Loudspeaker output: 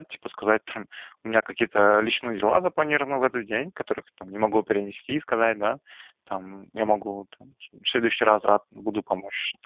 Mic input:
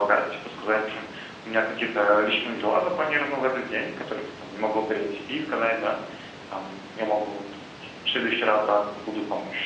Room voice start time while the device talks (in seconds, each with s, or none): none